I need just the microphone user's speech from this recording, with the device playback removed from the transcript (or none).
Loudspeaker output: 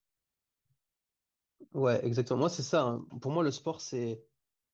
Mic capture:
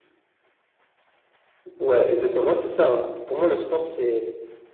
none